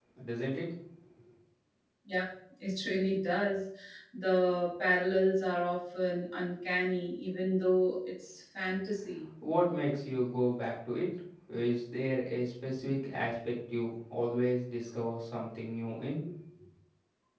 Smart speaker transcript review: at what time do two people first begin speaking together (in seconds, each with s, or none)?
none